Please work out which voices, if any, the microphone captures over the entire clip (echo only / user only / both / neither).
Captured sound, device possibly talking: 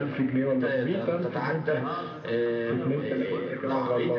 both